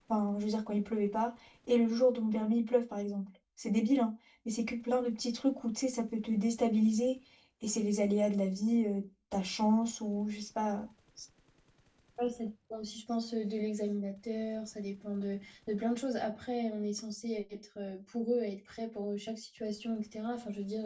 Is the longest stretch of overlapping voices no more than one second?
Yes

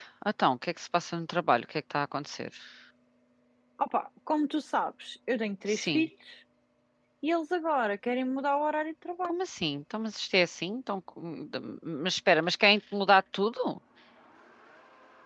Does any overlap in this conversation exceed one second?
No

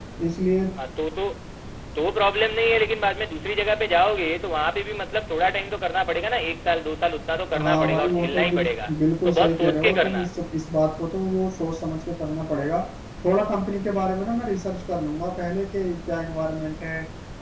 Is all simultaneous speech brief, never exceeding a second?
No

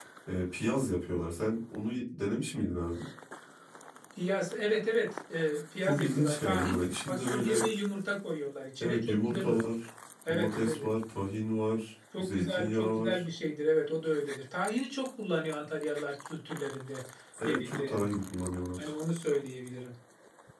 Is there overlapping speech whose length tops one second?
Yes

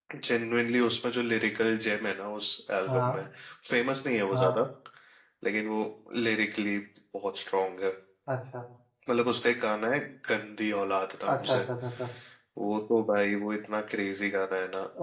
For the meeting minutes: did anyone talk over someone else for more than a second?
No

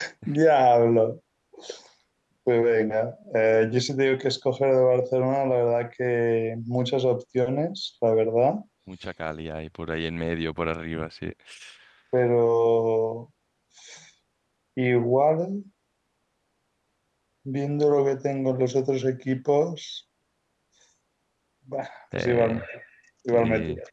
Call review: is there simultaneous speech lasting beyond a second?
No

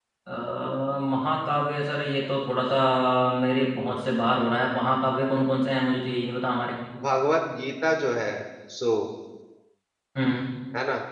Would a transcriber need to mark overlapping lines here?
No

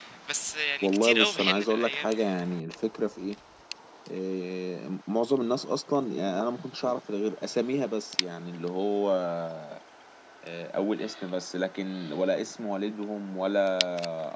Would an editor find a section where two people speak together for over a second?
Yes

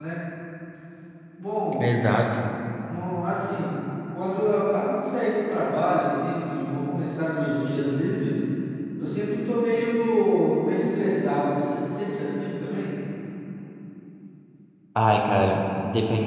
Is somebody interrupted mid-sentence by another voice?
No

